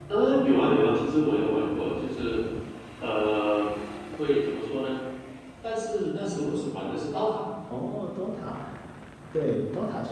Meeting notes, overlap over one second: none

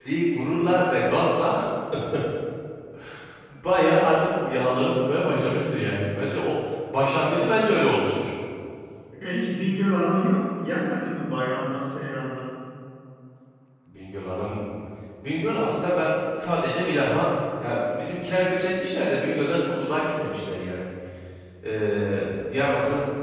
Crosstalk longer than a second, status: none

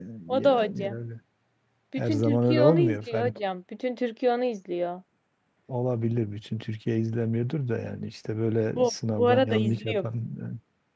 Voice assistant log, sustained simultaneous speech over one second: present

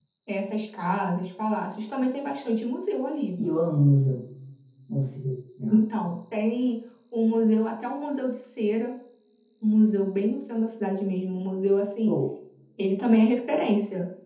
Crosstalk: none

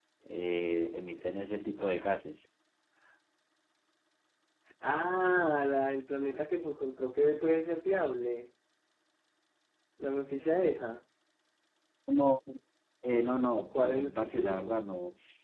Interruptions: present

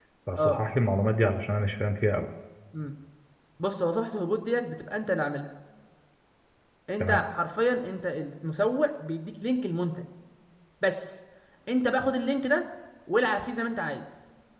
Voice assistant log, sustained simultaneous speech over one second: none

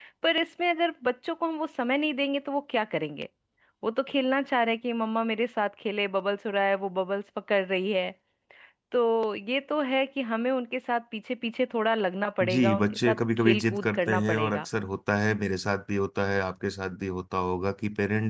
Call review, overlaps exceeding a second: present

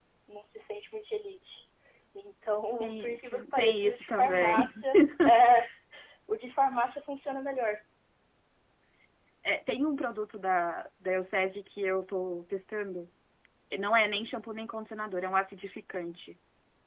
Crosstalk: present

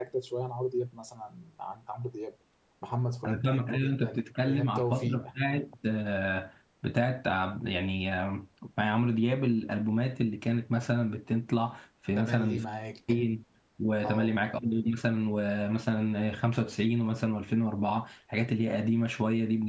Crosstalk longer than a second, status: present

